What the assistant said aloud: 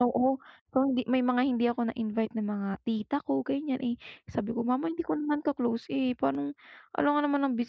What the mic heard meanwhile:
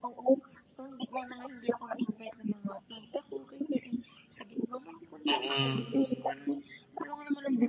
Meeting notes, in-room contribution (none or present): present